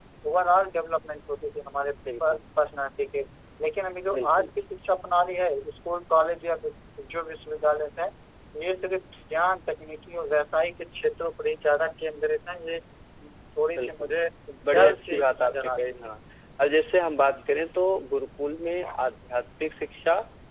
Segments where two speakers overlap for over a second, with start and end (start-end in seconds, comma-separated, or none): 14.7-16.1